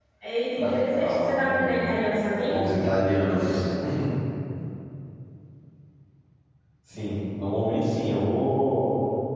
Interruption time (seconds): 0.6 s

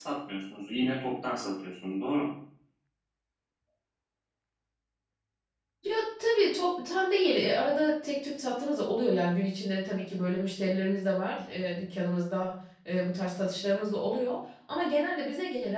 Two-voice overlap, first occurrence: none

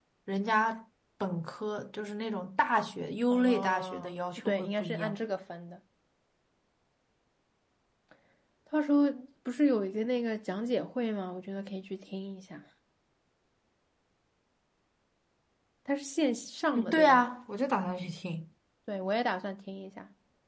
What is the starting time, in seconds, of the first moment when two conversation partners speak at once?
3.3 s

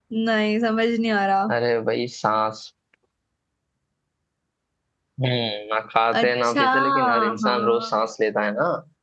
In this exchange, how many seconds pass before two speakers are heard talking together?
6.1 s

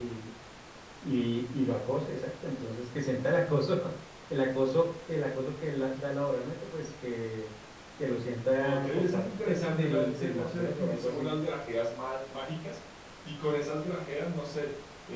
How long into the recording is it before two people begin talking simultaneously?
8.6 s

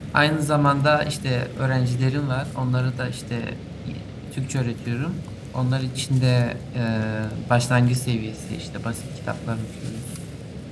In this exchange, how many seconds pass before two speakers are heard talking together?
none

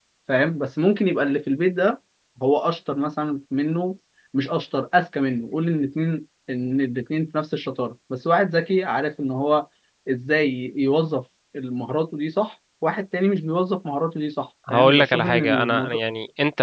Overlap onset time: 14.7 s

